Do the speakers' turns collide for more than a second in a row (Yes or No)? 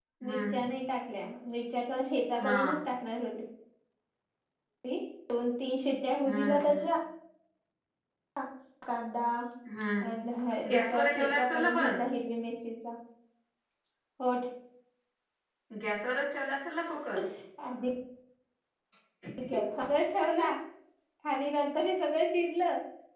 Yes